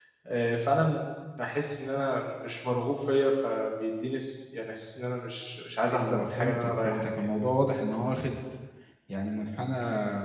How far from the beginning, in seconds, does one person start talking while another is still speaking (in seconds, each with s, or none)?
5.8 s